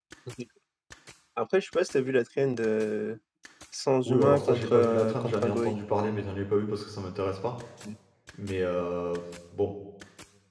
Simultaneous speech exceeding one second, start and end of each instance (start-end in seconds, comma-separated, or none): 4.0-5.8